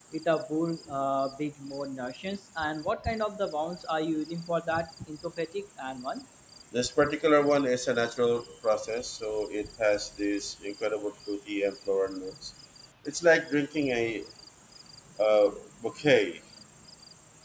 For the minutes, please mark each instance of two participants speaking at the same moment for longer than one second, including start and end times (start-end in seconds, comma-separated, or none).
none